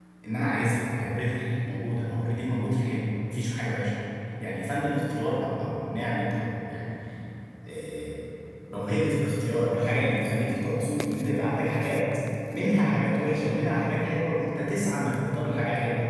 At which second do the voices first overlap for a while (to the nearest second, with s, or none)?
none